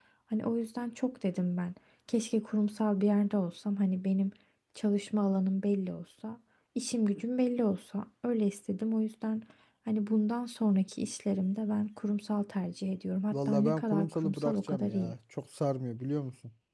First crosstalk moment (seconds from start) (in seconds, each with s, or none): 13.3 s